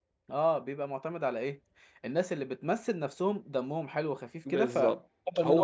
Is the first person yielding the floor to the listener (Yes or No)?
Yes